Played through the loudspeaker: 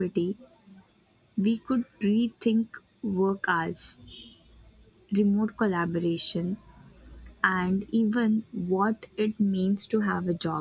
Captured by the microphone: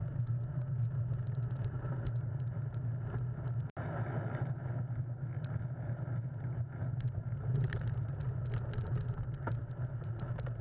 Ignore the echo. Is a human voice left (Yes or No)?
No